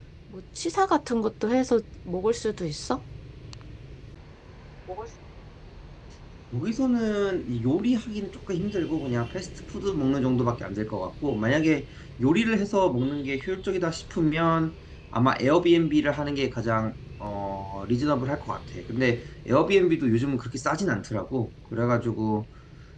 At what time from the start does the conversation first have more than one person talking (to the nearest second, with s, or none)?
none